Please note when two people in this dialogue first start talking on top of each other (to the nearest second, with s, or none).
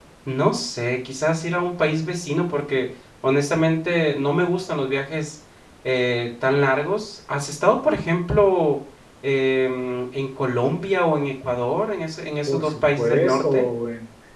12 s